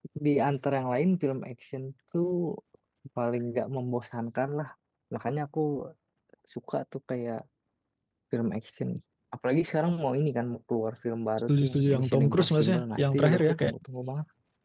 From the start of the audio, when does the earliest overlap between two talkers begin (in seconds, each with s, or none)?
11.5 s